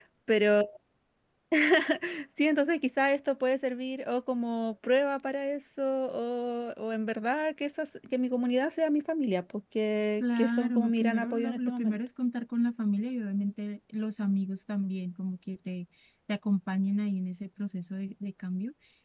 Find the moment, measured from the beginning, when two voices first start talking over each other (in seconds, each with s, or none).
10.2 s